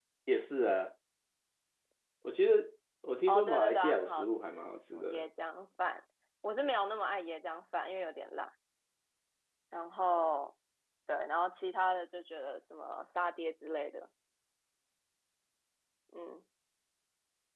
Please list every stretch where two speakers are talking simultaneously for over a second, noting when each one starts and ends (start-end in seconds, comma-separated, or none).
3.3-4.5